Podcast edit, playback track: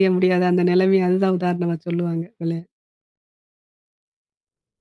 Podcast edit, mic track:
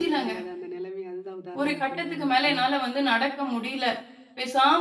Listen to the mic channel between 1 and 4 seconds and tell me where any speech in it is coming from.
both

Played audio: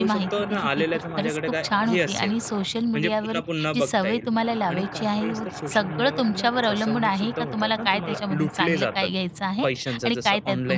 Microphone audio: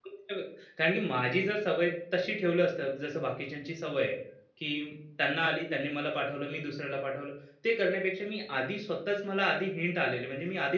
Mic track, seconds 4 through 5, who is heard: user only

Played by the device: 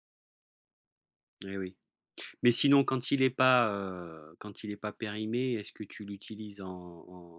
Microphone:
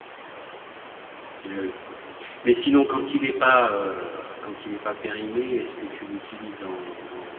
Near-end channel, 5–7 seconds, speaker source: echo only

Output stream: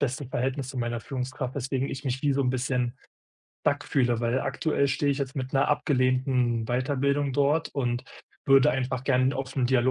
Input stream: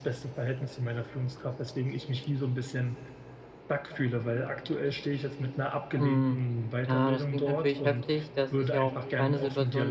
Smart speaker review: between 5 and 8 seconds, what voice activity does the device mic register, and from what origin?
both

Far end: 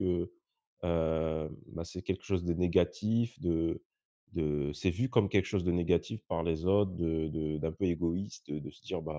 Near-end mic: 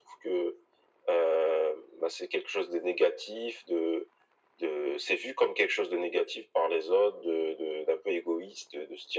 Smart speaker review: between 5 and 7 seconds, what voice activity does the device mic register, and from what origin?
echo only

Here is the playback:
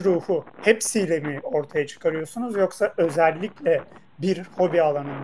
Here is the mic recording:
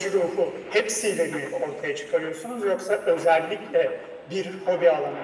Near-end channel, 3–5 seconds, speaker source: echo only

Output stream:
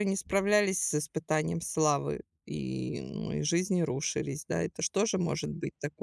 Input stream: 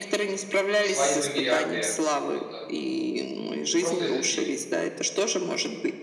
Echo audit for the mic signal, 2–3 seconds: both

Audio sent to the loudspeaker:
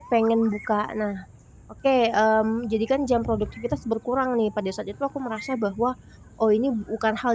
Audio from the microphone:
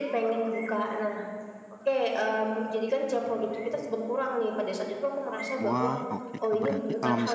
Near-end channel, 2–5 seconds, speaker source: echo only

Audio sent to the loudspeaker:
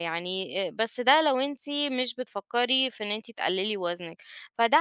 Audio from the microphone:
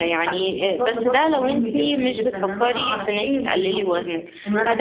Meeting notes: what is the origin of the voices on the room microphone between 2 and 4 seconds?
both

